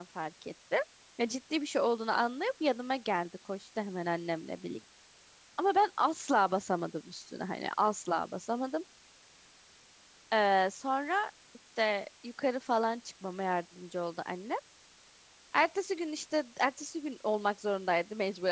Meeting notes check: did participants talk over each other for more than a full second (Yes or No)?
No